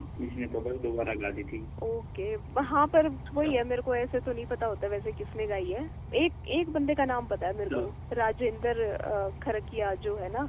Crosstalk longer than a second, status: none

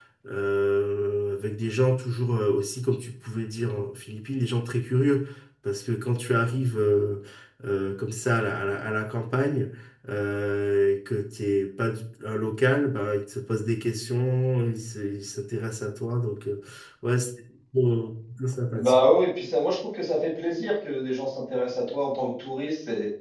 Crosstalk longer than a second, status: none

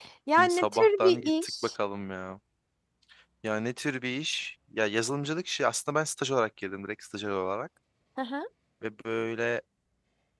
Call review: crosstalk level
present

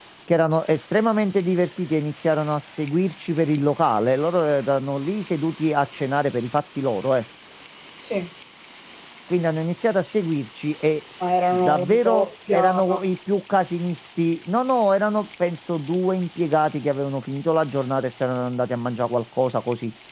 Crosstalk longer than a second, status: present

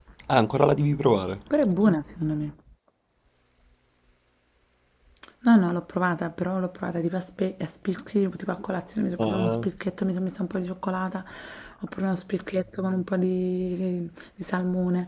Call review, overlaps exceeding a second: none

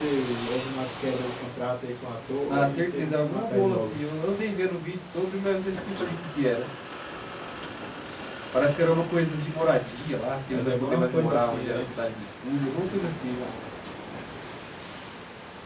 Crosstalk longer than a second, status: present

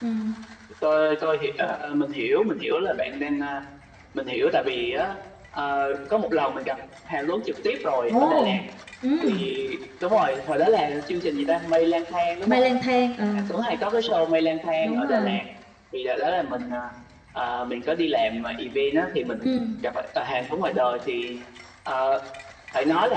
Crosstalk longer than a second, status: none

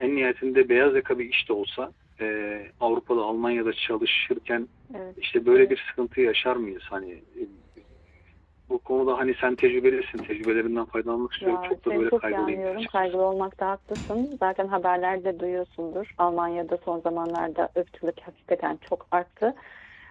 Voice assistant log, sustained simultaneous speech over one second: present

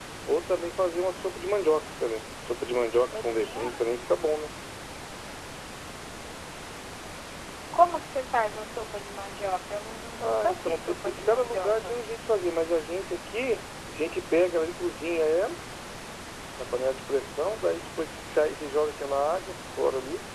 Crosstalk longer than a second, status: present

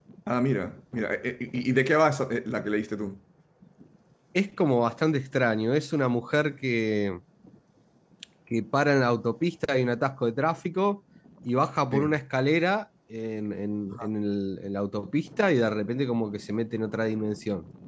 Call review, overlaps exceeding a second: none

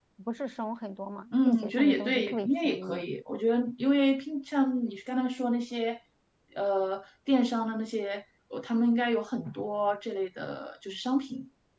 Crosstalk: present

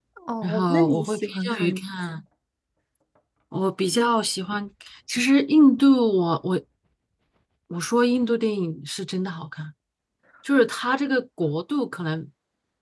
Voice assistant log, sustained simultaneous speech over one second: present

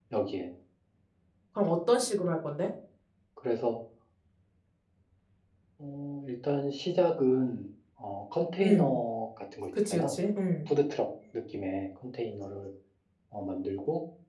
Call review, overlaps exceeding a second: none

